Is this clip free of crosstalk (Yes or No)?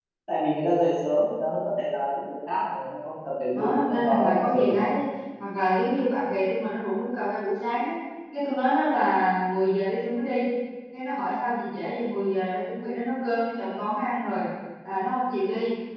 No